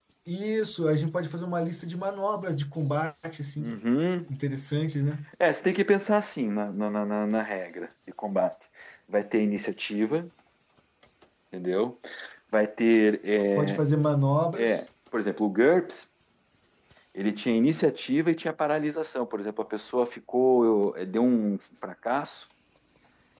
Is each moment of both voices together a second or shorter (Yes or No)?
Yes